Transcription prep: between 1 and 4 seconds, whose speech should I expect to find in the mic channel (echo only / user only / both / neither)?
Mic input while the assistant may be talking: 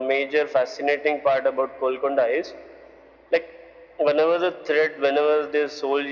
echo only